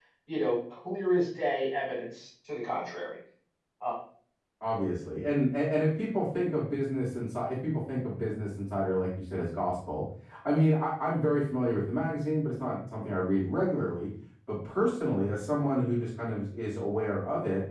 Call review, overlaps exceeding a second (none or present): none